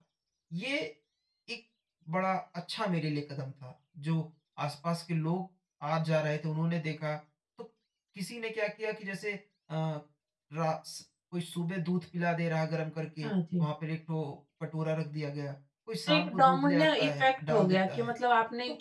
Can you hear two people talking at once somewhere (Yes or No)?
Yes